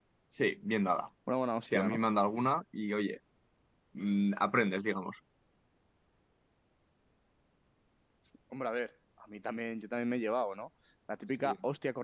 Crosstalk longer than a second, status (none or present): none